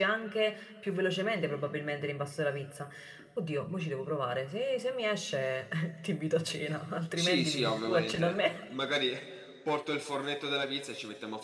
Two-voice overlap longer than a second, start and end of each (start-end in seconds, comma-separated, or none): 7.2-8.5